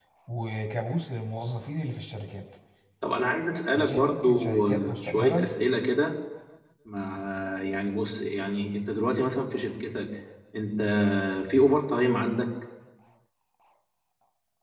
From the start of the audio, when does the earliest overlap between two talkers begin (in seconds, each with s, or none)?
3.8 s